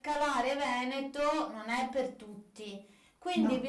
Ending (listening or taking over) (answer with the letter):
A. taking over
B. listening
B